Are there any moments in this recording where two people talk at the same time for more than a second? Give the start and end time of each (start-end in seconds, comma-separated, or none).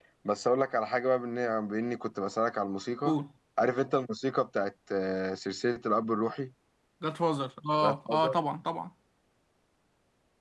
none